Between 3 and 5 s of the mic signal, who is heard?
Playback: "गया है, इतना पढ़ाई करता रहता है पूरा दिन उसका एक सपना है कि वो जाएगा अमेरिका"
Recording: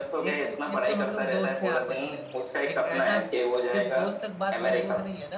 both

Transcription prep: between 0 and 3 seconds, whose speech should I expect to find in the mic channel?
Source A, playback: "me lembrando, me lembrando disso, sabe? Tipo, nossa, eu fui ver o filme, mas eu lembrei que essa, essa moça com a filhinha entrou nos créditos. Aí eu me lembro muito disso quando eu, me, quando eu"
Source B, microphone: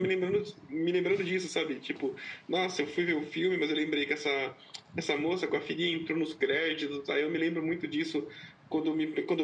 echo only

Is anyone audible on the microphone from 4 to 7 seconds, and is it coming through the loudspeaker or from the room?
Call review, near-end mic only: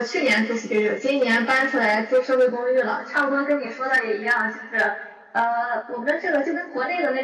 echo only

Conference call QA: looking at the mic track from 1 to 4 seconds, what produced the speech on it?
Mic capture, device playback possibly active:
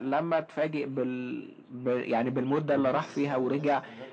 both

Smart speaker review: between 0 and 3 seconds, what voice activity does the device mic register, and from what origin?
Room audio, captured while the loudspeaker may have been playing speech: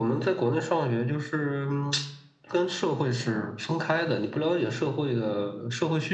echo only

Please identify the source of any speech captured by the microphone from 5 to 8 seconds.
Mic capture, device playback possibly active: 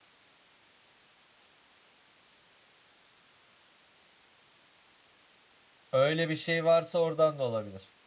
user only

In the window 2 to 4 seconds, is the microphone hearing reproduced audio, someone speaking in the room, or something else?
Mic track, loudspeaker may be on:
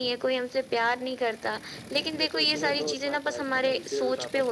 echo only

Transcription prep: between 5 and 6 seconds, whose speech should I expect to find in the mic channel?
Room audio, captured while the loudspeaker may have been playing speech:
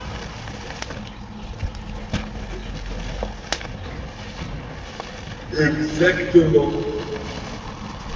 user only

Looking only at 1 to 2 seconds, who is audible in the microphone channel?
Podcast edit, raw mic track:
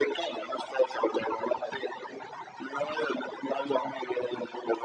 echo only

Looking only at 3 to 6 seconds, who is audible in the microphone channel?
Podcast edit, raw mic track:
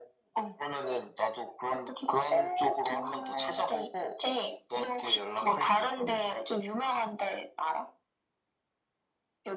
echo only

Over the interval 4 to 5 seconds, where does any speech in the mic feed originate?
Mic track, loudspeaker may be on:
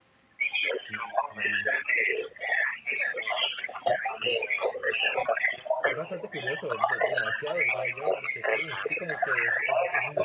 echo only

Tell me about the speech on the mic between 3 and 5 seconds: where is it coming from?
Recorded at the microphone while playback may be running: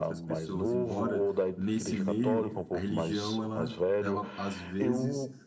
both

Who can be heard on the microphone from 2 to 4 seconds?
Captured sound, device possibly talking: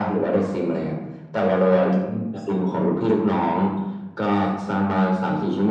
echo only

